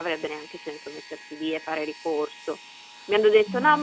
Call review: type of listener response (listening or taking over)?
listening